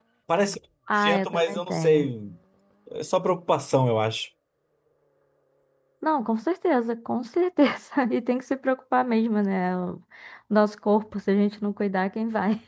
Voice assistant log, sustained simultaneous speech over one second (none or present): present